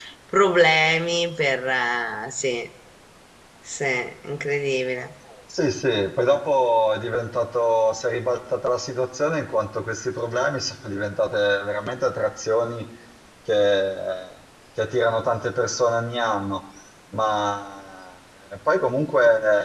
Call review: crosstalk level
none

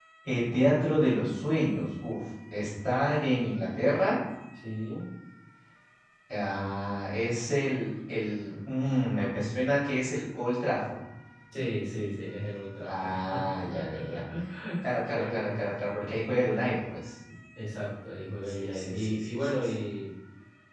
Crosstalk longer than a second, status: present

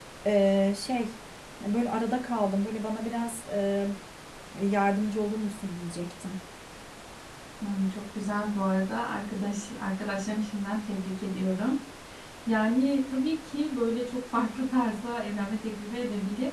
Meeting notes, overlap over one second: none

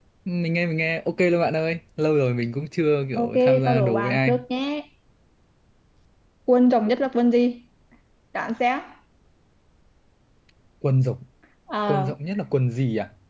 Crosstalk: present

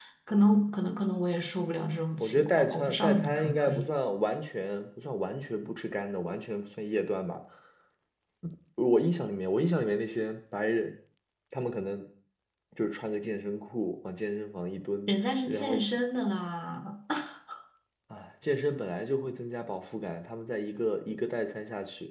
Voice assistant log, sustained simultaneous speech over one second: present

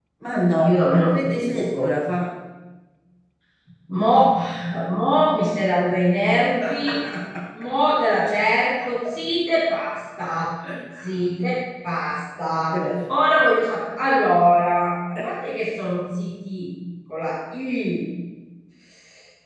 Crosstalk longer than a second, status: present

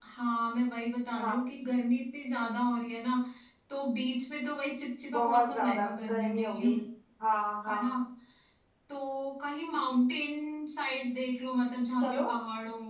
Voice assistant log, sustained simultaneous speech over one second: present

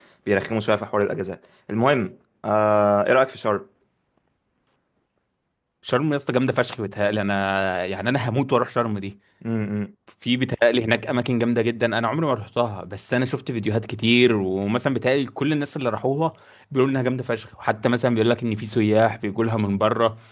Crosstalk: none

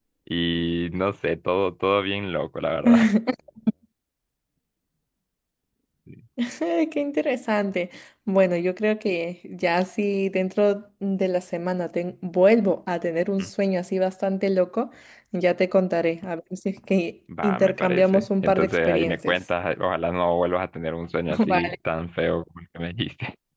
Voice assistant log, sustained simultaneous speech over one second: present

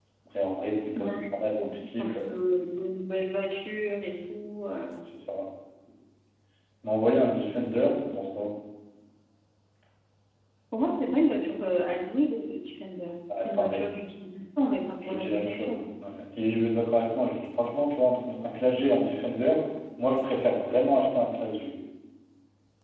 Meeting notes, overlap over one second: present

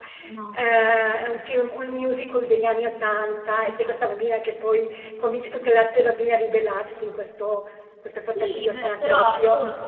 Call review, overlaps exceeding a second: present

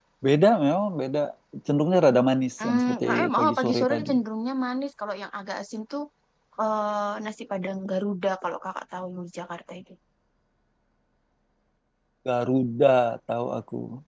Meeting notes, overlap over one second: present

